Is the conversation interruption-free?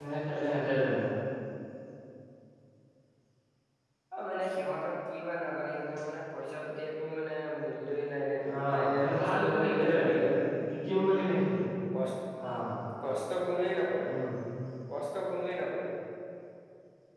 No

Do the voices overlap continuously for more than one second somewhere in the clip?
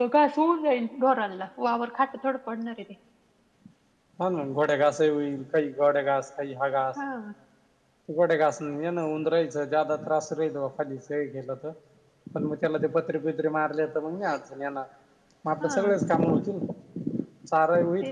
No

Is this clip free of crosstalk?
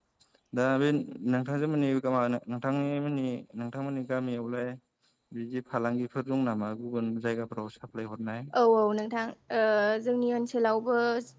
Yes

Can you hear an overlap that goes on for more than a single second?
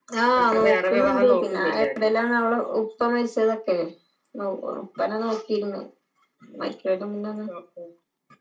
Yes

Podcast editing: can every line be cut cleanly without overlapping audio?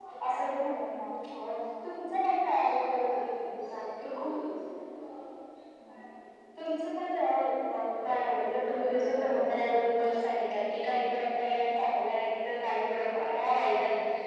No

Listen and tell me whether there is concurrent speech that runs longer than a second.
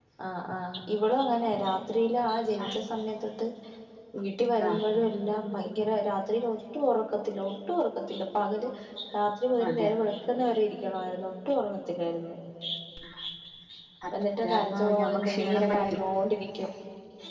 Yes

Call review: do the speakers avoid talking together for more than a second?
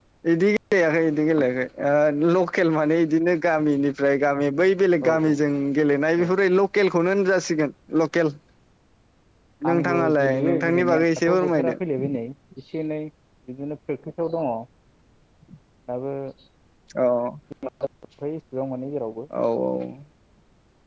No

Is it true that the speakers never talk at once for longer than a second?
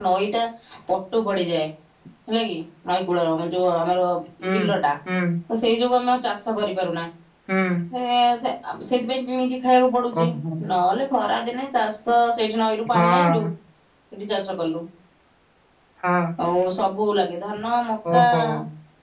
Yes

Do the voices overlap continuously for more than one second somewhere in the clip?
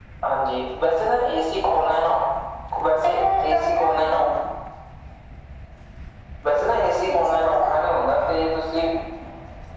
Yes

